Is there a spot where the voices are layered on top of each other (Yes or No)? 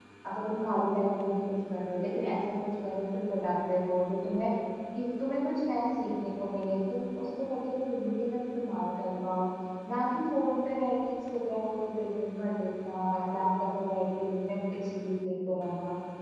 No